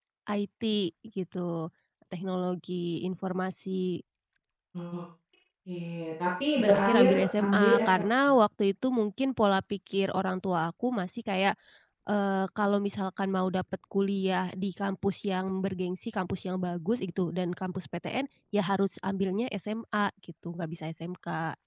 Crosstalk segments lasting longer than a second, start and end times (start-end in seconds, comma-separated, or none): 6.6-8.0